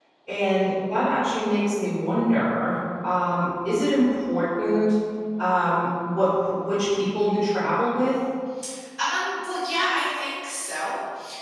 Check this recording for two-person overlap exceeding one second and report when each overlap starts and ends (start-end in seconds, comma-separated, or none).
none